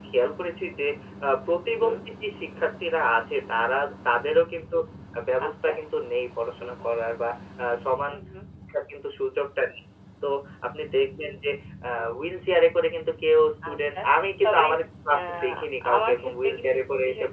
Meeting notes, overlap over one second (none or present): present